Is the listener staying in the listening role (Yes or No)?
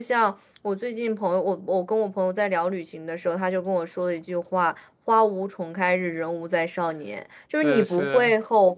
Yes